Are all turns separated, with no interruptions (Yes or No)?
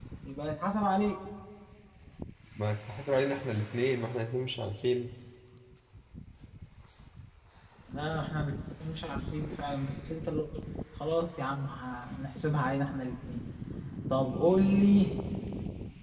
Yes